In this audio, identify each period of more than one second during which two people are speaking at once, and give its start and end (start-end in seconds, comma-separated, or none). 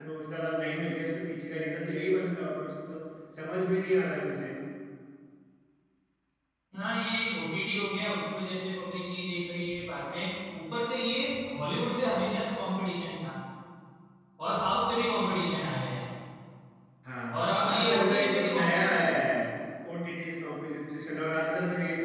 17.6-19.1